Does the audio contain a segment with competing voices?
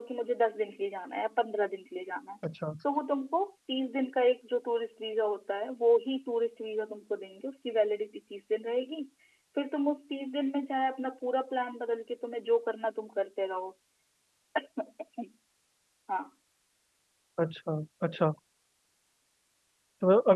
No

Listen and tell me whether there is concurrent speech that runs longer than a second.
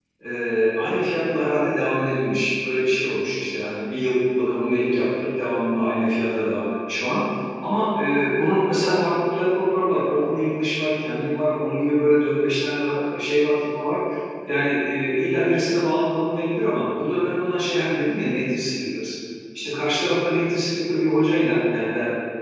No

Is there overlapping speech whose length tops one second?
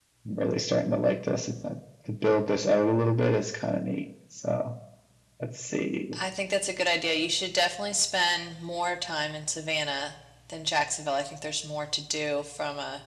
No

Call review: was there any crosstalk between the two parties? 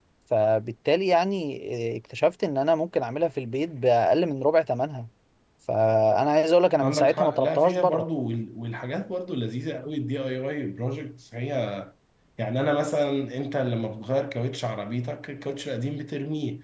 Yes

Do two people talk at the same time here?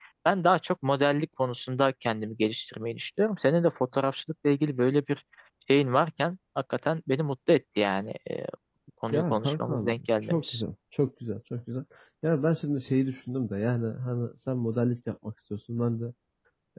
Yes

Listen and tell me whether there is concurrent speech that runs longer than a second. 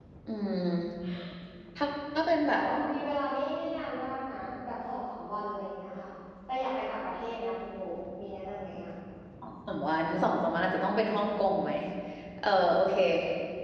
No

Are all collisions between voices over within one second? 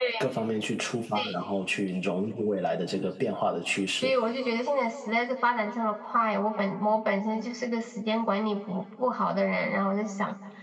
Yes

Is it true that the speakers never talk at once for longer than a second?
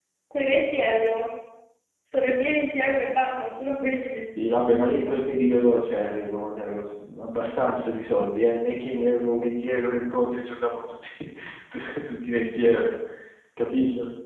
Yes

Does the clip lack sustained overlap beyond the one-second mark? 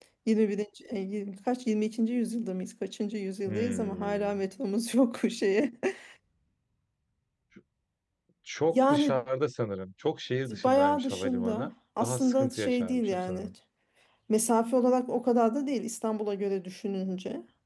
No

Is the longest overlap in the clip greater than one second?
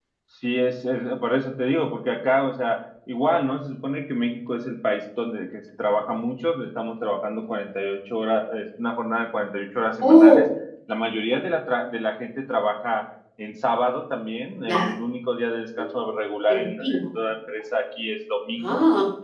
No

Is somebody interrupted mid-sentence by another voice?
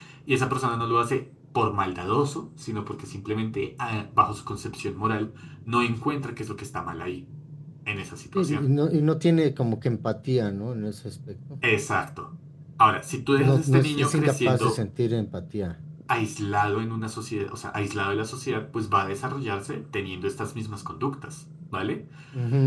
Yes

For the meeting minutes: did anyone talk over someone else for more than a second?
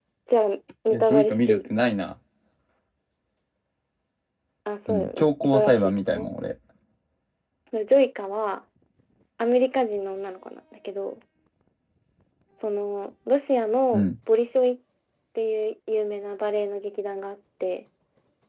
Yes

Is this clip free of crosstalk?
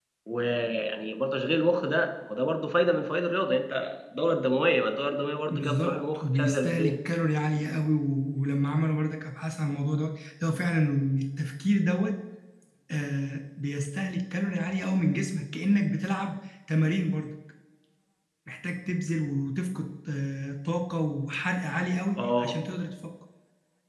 No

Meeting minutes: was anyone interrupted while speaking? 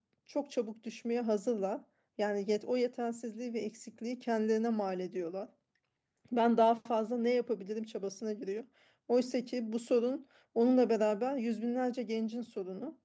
No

